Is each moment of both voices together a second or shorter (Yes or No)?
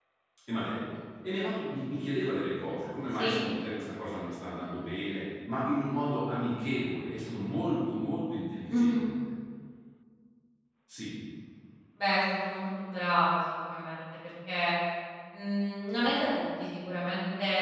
Yes